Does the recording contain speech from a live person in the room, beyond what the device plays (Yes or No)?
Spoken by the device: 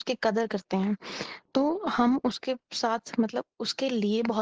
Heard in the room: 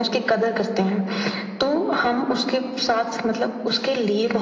No